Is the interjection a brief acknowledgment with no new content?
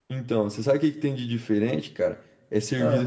Yes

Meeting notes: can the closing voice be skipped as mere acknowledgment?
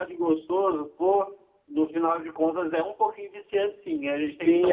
No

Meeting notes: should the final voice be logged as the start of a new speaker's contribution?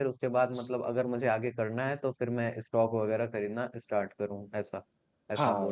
Yes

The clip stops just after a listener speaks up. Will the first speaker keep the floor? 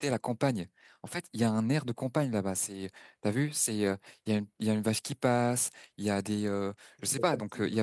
Yes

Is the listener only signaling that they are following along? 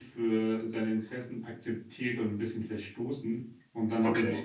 Yes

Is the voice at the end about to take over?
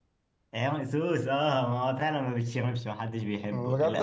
Yes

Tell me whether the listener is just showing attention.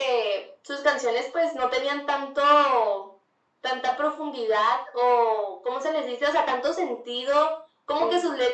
Yes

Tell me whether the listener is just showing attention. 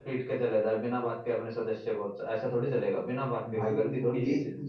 No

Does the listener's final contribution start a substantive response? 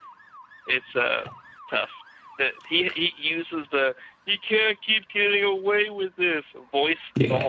Yes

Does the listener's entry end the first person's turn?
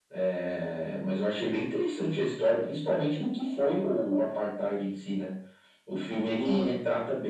No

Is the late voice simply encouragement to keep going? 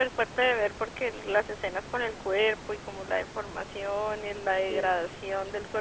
Yes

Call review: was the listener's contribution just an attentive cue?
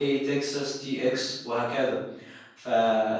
Yes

